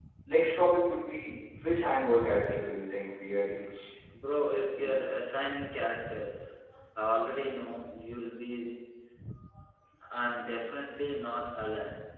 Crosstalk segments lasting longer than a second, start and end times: none

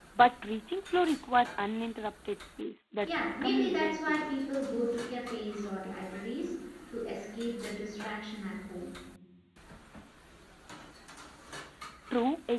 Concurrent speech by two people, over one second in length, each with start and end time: 3.0-4.3

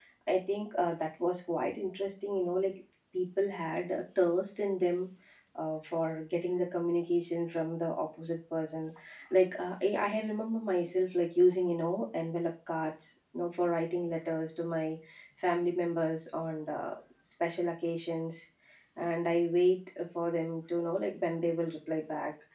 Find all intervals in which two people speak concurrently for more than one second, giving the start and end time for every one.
none

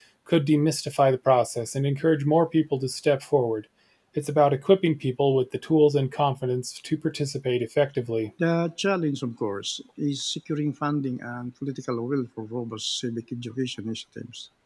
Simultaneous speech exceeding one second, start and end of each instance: none

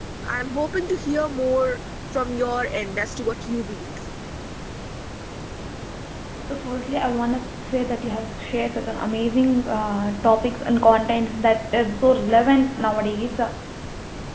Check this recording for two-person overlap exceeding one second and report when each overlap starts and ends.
none

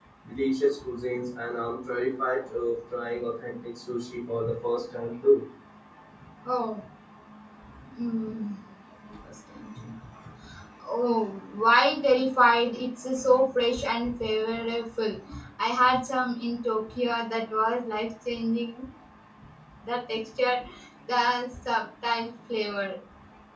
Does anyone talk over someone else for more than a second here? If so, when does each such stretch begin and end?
none

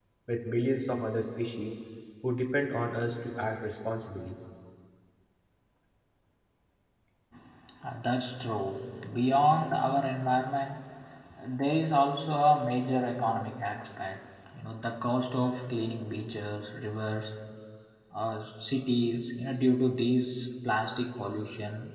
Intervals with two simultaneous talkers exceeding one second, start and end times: none

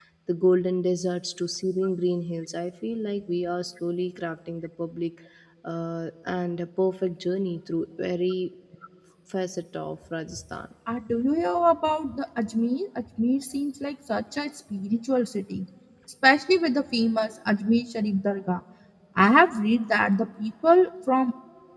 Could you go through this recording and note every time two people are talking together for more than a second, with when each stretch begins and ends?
none

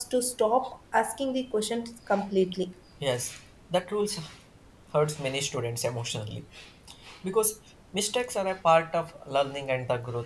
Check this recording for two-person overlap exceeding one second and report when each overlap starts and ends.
none

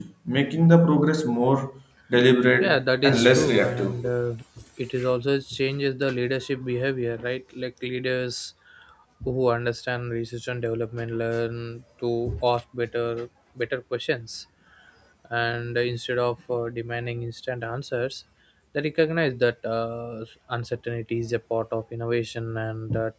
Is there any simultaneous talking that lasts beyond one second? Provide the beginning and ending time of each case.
2.6-4.0

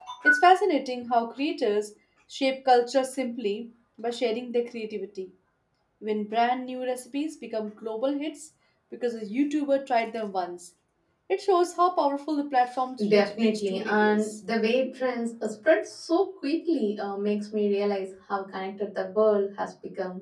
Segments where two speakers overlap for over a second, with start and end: 13.1-14.3

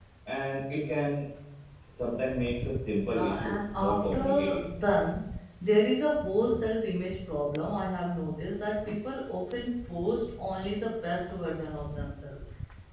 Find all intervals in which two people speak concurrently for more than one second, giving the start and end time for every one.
3.0-4.6

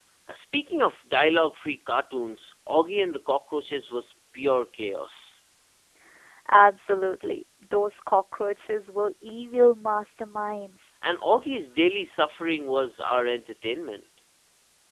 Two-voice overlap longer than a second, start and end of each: none

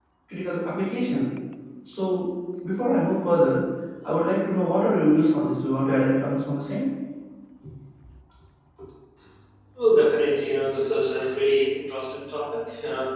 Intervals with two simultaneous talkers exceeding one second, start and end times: none

